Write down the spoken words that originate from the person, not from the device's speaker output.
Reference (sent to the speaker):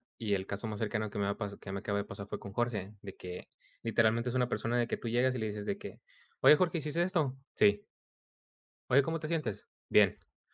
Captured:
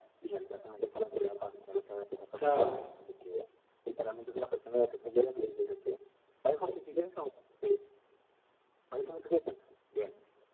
claro.

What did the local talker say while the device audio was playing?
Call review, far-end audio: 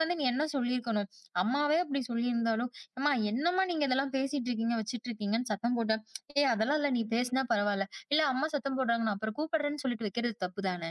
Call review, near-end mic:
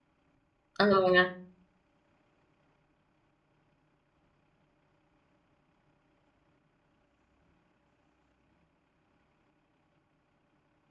ஆமாங்க.

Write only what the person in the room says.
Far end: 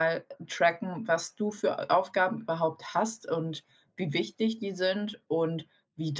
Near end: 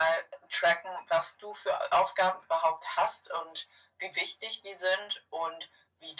none

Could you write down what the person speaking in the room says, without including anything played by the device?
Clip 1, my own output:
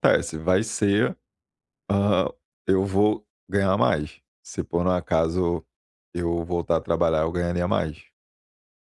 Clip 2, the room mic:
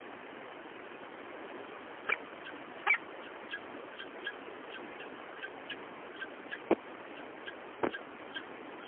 none

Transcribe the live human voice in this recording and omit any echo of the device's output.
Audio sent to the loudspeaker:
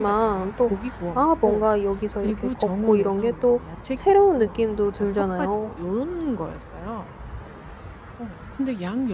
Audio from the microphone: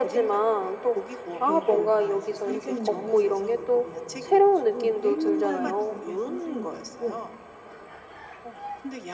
그 길을 다 이제 산책로와 자전거 도로로 만들어 가지고 굉장히 길게 산책로가 있고

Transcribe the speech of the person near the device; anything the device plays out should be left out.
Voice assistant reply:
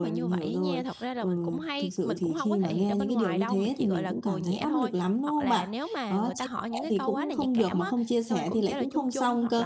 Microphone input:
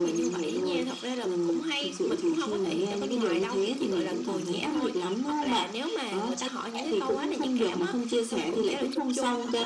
none

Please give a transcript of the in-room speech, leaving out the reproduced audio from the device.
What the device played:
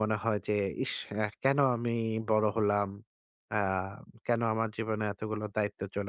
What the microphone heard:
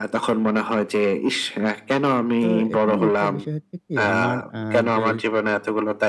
তো এখানে একটা বিষয় হচ্ছে কি আমার আ যে

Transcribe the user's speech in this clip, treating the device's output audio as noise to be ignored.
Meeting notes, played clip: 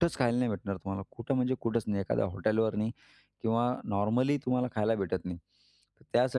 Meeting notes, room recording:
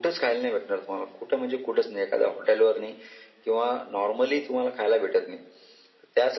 none

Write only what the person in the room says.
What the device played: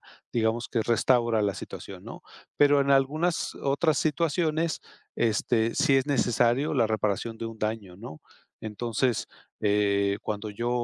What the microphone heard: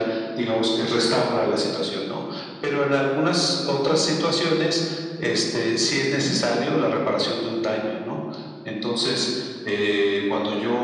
none

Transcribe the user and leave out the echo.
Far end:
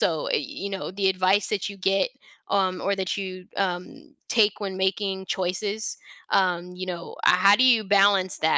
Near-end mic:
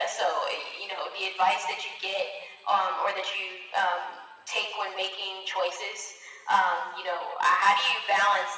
none

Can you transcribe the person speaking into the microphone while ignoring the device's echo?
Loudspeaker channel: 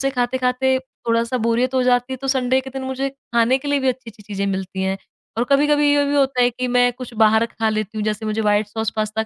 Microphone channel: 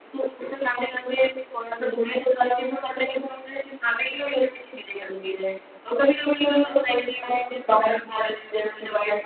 हाँ, हाँ,

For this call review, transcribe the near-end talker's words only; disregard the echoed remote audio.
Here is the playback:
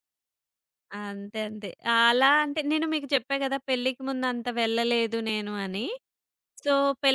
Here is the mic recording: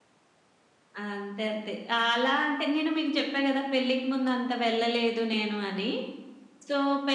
none

